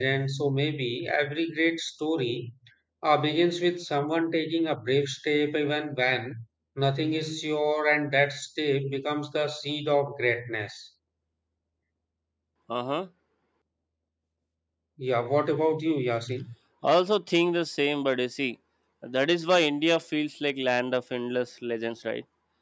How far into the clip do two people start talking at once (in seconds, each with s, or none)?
none